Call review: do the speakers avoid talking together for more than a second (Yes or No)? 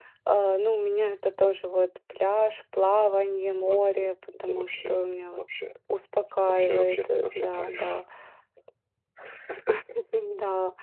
No